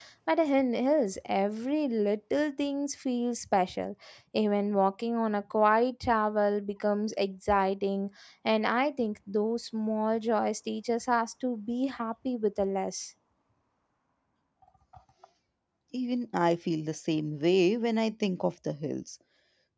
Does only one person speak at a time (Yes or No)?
Yes